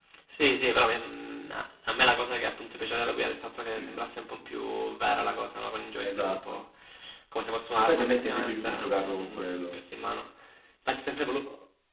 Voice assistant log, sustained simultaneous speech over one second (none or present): present